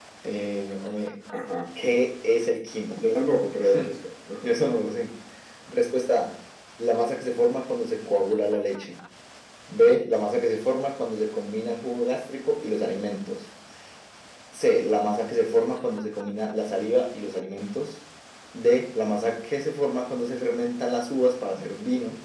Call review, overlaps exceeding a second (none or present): none